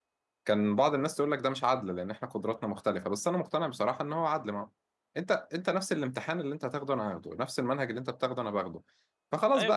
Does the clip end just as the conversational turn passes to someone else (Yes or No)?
No